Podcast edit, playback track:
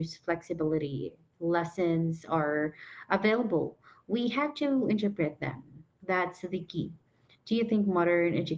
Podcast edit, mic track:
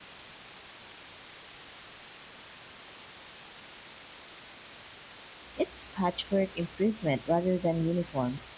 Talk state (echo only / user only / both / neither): user only